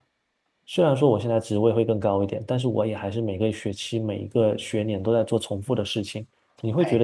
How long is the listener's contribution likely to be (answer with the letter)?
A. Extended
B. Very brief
B